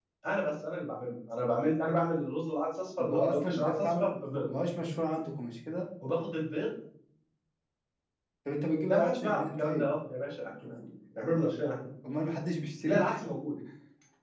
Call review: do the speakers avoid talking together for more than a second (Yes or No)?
No